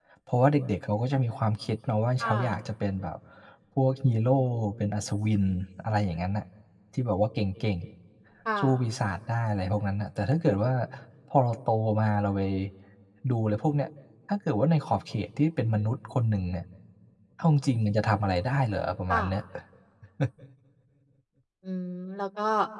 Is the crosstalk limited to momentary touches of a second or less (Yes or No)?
Yes